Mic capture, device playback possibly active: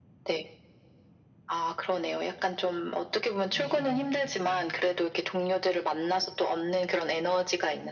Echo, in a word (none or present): present